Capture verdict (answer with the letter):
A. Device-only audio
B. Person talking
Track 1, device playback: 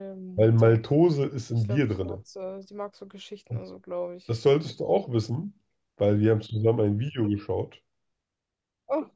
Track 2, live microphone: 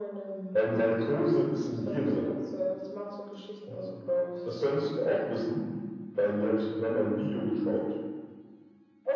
A